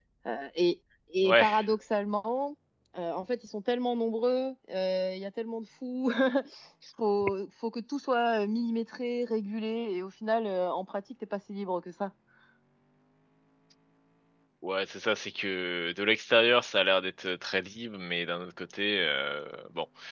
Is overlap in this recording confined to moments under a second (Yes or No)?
Yes